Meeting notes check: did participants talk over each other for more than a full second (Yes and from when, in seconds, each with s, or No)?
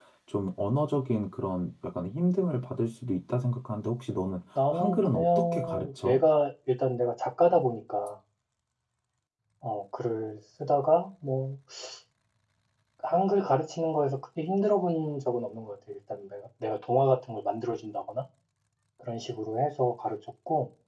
Yes, from 4.6 s